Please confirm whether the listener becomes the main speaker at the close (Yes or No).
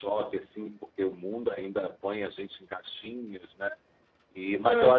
No